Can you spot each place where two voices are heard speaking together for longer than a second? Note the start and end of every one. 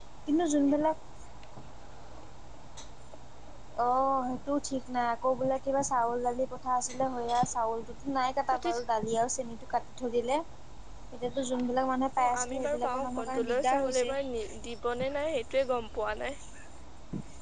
12.2-14.1

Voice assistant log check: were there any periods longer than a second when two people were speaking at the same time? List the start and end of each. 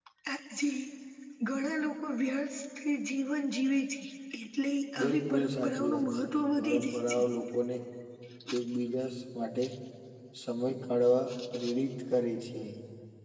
5.0-7.2

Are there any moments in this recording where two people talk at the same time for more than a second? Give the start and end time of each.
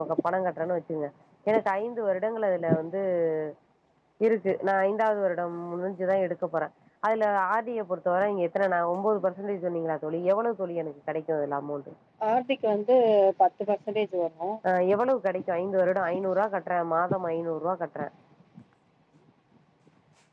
none

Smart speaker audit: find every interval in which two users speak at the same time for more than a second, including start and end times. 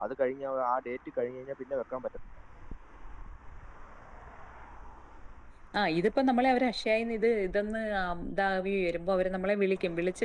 none

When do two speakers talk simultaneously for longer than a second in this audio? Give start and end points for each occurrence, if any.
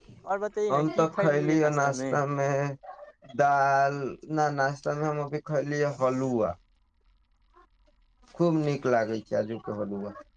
0.7-2.0

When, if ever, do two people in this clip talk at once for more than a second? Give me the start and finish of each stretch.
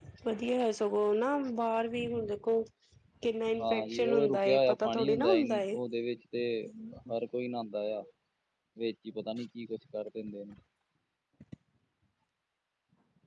3.6-5.8

